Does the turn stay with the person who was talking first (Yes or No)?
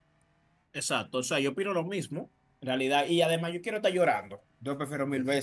Yes